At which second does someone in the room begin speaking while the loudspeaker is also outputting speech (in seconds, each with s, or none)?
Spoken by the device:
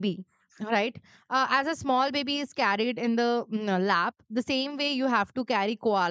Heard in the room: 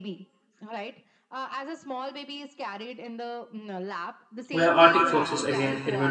4.5 s